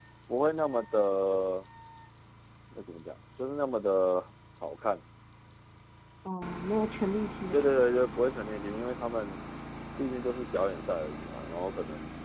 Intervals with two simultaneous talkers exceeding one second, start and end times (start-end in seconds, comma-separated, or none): none